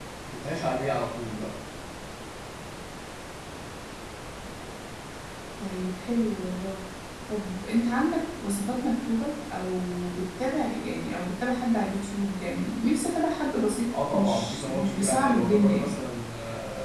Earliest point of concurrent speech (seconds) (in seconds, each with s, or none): 13.9 s